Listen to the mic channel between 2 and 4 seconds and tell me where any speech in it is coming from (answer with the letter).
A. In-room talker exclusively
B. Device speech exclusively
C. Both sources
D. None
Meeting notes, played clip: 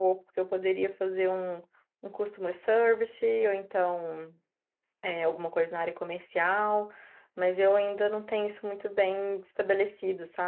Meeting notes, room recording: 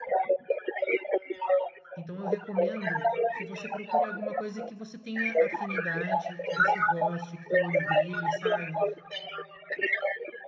C